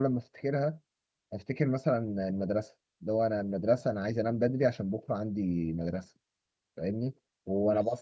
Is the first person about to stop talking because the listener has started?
No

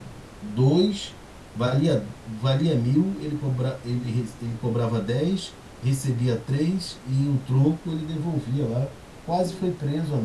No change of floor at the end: No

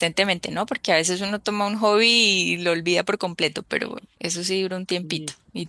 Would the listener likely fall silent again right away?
No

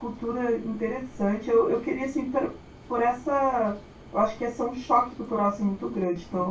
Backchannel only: No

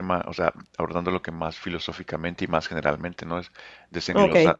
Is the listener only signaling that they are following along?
Yes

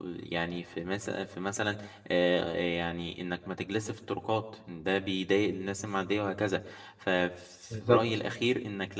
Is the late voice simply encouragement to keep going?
Yes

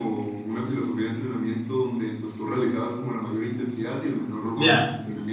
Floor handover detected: Yes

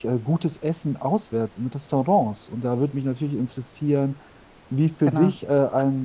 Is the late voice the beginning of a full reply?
No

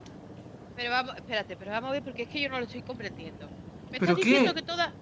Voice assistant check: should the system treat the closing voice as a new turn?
No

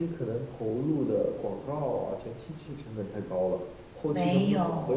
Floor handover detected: Yes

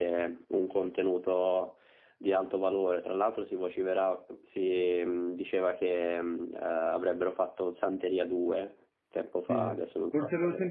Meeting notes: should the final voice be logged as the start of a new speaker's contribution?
Yes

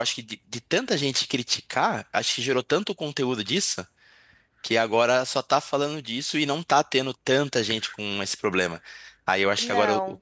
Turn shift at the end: No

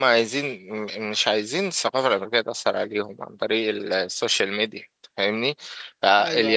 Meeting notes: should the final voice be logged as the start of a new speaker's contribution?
No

